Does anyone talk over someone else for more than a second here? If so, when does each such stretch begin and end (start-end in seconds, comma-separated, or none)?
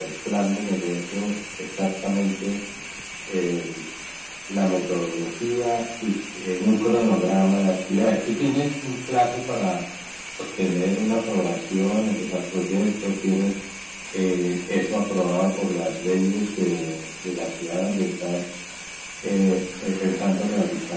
none